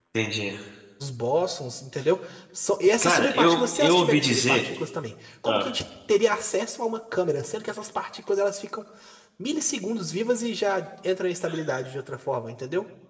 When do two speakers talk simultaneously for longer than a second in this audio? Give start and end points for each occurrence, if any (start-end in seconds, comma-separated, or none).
3.0-4.6